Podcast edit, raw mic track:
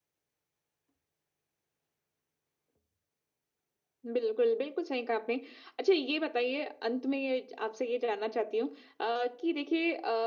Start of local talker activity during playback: 4.0 s

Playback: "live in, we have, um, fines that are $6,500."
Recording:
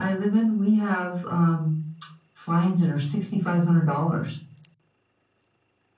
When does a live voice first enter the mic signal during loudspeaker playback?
none

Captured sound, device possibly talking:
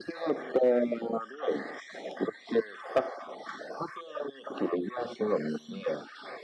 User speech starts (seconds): none

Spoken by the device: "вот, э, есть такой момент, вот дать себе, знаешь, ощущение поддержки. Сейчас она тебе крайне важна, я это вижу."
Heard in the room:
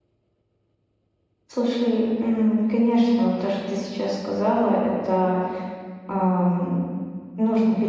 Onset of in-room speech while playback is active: 1.5 s

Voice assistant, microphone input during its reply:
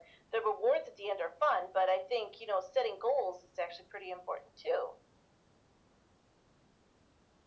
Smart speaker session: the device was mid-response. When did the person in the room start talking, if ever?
none

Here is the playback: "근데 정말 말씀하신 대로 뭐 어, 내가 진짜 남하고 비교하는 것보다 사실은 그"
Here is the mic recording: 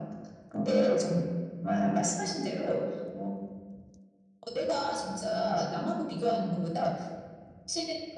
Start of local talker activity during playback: none

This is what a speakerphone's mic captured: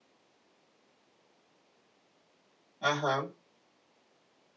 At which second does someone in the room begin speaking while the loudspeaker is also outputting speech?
2.8 s

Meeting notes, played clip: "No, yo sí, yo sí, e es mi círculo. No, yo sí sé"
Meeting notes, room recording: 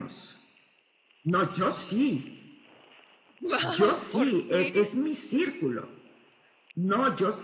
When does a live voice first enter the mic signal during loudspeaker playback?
3.4 s

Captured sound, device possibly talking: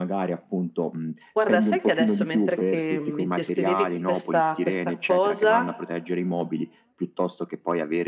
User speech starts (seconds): 1.3 s

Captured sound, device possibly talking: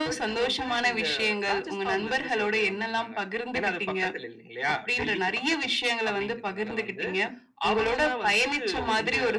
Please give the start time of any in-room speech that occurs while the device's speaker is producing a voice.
none

